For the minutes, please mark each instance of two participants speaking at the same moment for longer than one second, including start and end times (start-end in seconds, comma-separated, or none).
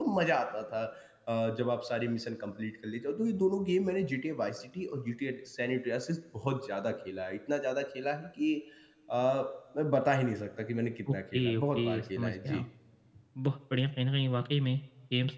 11.1-12.6